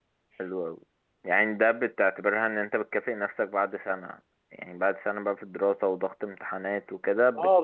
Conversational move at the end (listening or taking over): taking over